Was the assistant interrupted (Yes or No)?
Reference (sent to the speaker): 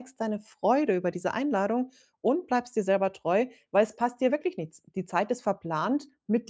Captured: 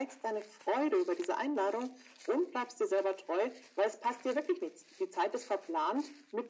No